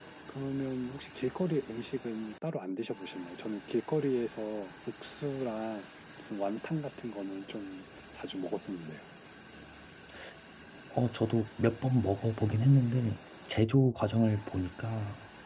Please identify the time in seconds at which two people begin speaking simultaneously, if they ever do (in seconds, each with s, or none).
none